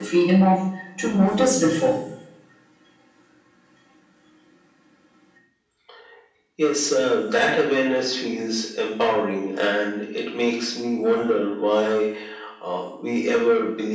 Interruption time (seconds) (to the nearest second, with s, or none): none